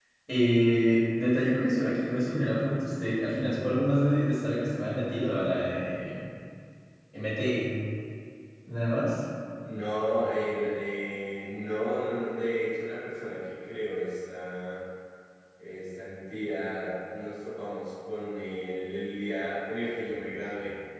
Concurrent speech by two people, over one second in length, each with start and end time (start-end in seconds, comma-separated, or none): none